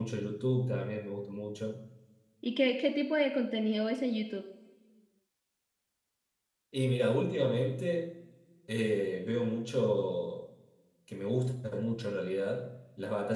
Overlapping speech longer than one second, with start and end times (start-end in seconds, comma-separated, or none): none